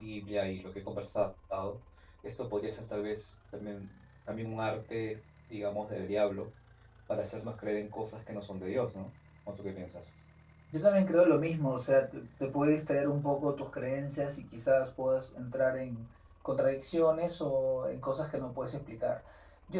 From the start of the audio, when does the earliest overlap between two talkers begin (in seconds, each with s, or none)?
none